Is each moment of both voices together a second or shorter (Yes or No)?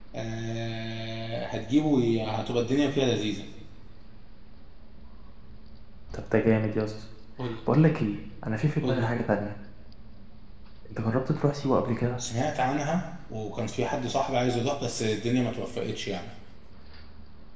Yes